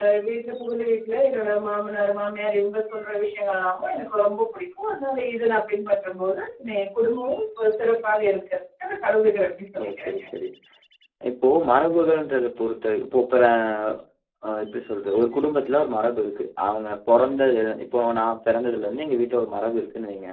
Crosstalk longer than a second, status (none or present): none